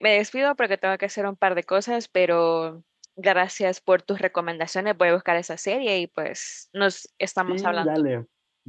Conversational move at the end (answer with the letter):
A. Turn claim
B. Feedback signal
A